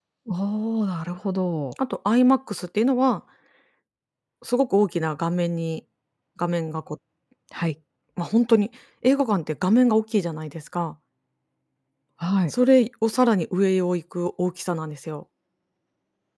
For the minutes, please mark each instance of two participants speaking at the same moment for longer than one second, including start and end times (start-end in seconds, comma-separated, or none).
none